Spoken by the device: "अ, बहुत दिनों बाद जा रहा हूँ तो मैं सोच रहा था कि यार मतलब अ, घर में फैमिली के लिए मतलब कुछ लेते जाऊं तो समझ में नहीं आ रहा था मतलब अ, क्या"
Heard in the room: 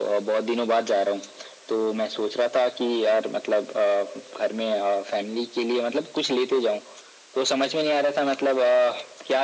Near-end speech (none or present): none